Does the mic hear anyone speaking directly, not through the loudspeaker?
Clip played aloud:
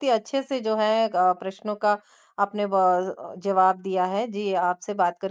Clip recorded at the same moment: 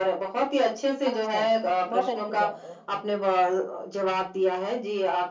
Yes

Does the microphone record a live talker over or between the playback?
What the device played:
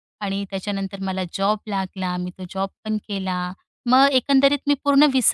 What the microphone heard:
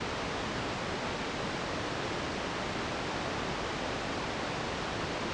No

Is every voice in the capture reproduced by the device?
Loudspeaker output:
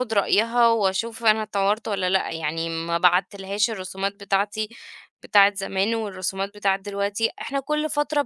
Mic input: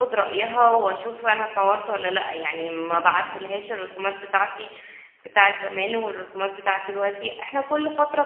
No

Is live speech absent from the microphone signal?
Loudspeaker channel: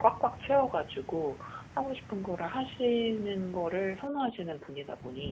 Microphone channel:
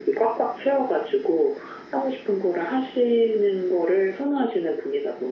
Yes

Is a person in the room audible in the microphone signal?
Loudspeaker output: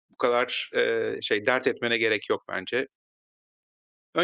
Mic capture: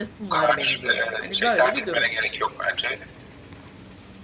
Yes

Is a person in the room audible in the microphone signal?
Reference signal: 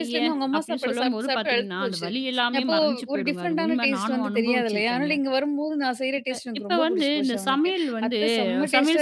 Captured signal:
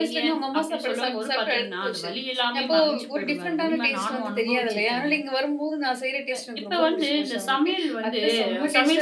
No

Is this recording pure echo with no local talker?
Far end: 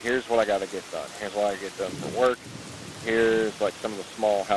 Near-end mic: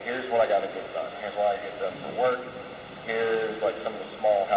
Yes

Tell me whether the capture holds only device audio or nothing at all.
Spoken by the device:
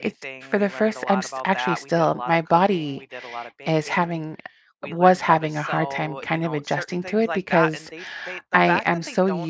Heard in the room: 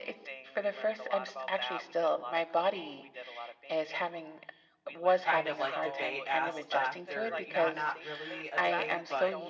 No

